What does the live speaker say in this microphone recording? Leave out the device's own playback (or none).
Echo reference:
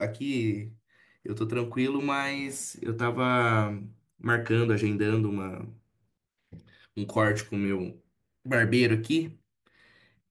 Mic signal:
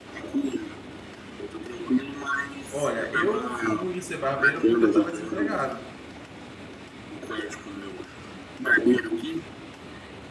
Olha, eu fui ser barbeiro porque eu estava desempregado.